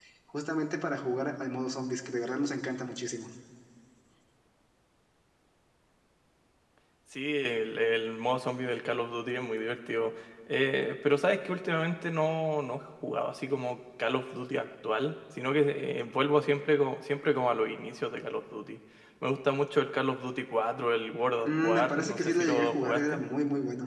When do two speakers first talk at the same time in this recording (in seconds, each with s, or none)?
21.4 s